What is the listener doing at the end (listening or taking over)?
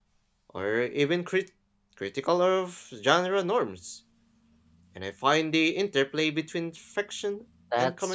taking over